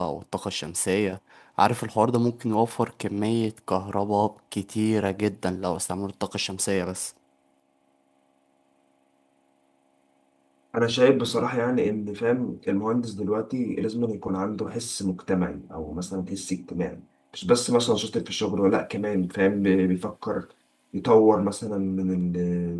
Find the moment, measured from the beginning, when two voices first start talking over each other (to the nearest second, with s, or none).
none